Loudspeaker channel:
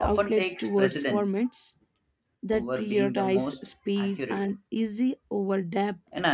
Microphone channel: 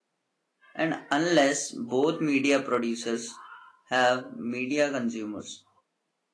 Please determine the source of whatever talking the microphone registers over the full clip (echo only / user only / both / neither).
user only